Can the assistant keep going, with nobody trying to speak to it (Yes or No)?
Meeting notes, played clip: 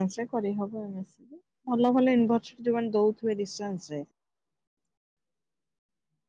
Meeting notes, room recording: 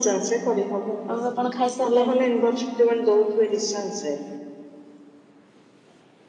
No